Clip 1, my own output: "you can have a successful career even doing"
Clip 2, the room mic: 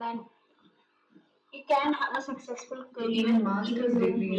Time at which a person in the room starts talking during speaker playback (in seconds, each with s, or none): 3.1 s